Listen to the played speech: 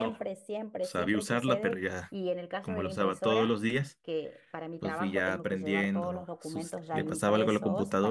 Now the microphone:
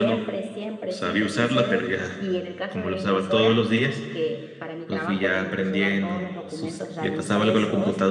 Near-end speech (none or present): none